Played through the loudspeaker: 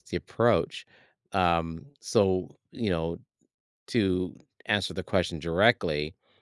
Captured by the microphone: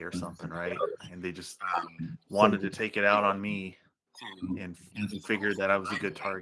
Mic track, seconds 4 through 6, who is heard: both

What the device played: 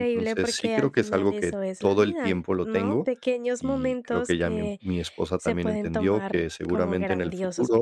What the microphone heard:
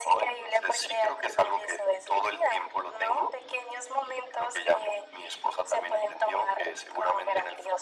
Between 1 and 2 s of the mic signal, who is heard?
echo only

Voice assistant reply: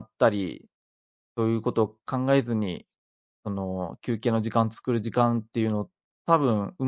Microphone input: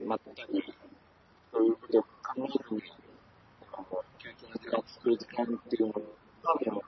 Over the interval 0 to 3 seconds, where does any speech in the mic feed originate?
echo only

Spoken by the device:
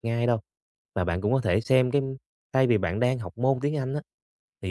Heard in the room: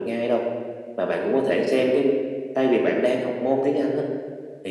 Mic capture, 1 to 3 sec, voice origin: echo only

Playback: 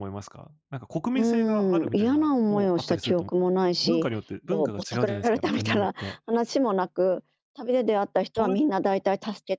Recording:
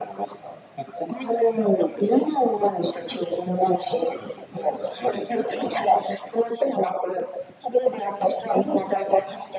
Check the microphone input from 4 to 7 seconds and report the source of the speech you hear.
echo only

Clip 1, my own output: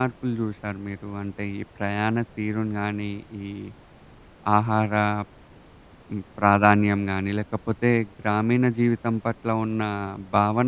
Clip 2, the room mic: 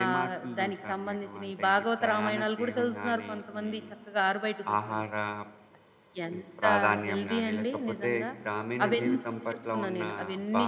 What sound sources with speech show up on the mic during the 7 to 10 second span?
both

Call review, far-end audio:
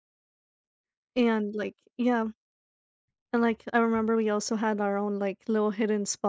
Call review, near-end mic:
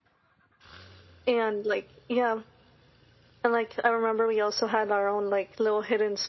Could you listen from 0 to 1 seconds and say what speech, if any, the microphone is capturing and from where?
neither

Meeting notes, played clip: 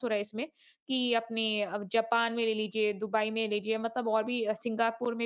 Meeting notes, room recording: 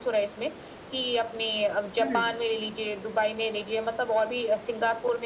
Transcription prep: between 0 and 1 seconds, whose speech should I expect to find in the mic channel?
echo only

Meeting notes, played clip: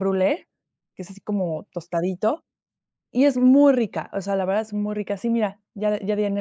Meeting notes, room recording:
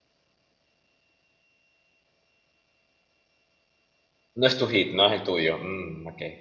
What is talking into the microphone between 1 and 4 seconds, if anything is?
neither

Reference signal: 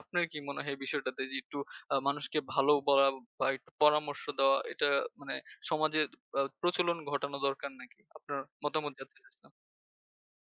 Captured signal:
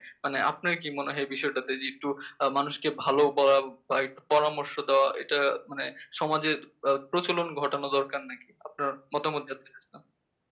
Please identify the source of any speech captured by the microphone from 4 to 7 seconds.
echo only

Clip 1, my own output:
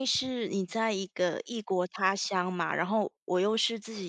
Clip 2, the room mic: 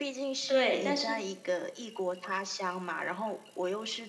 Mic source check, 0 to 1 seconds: both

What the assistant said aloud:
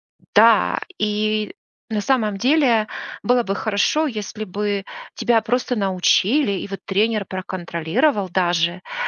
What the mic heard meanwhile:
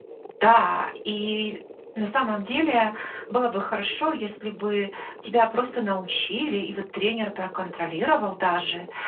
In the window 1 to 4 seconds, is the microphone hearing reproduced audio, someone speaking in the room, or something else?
echo only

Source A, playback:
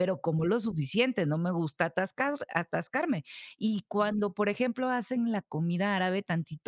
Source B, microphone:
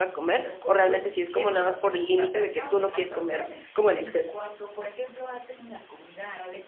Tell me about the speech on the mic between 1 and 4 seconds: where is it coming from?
both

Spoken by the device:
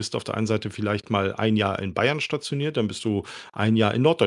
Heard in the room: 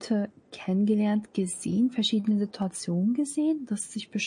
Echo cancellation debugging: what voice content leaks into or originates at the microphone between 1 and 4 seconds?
user only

